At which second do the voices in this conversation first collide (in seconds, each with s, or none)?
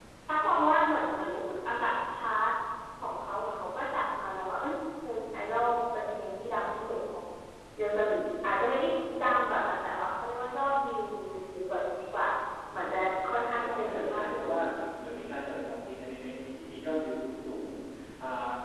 13.3 s